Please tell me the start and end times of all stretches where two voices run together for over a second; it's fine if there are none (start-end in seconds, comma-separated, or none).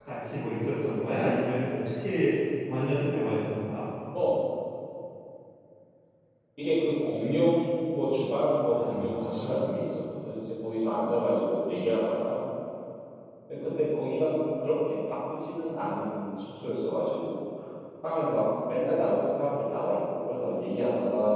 8.7-9.9